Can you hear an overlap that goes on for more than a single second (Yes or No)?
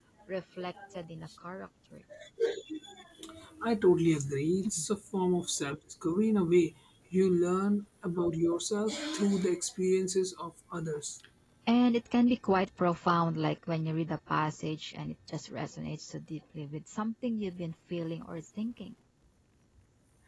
No